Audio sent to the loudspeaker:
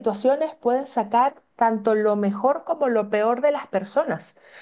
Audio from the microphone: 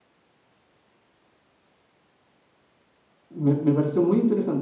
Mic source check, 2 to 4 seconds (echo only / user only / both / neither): user only